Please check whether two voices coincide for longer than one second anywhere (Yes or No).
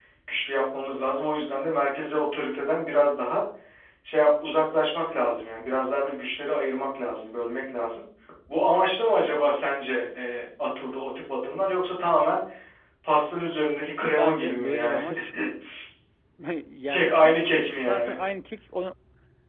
Yes